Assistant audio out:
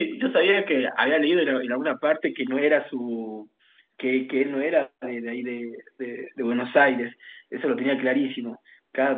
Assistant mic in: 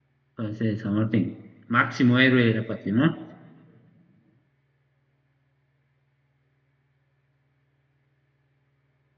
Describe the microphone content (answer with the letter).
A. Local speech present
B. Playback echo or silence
A